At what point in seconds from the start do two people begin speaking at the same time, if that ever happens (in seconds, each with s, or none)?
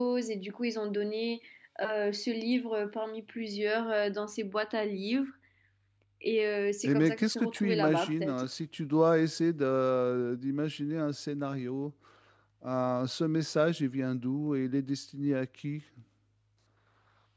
6.8 s